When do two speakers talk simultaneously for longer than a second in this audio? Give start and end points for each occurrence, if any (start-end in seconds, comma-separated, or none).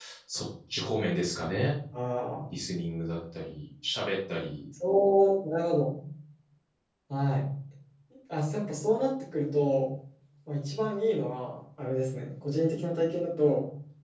none